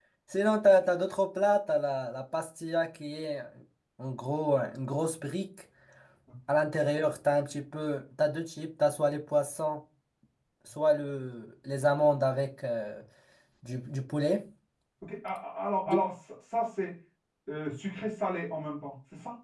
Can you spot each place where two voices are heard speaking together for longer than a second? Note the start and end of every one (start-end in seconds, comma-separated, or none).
none